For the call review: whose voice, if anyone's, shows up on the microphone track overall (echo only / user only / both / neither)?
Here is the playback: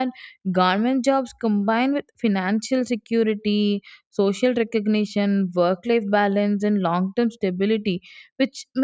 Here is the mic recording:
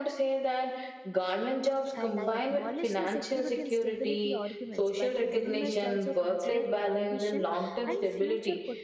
both